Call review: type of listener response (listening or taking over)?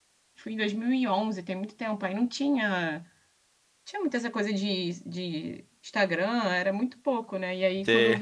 listening